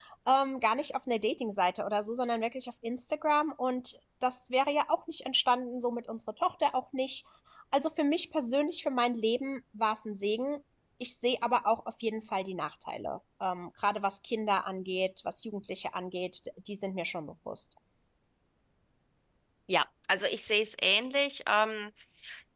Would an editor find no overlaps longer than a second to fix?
Yes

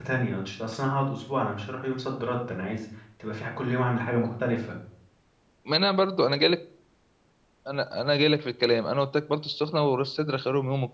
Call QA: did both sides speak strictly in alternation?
Yes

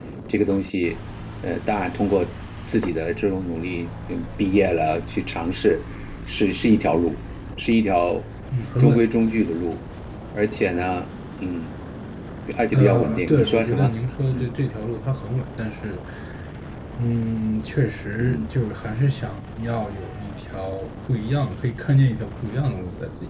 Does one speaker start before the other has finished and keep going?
Yes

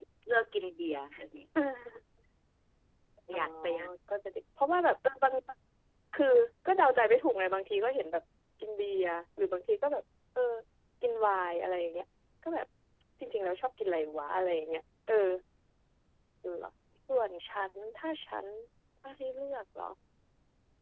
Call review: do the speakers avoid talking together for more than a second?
Yes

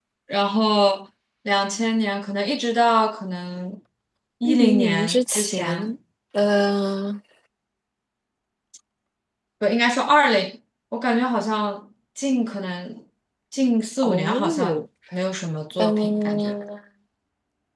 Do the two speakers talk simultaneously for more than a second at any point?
Yes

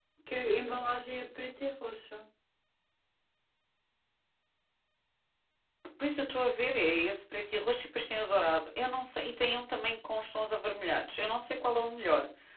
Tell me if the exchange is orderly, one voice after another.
Yes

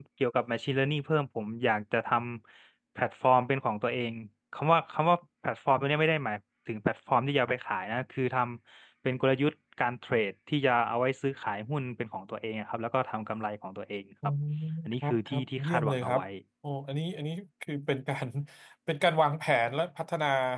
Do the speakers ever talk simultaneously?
Yes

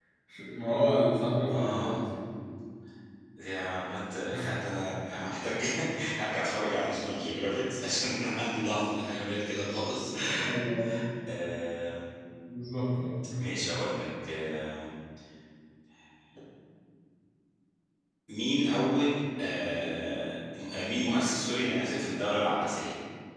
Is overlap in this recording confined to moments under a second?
Yes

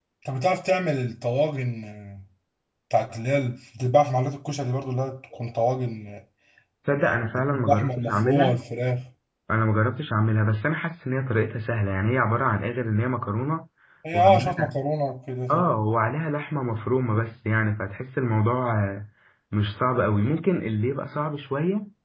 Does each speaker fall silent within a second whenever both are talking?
No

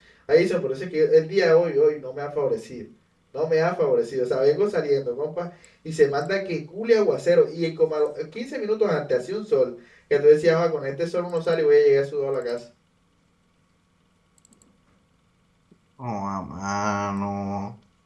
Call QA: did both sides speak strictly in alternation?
Yes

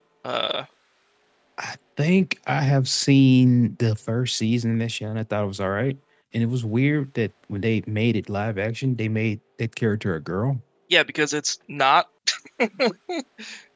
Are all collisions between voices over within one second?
Yes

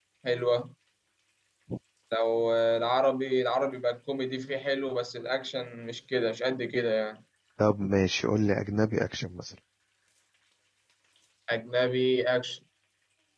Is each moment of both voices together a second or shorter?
Yes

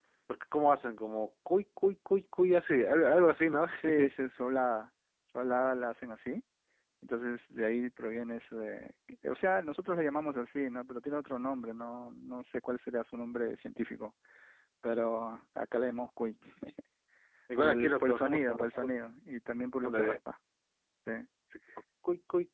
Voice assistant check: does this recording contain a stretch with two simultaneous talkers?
Yes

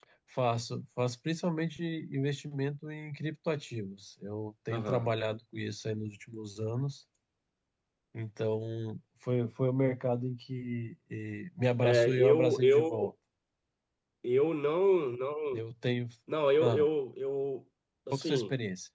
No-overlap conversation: No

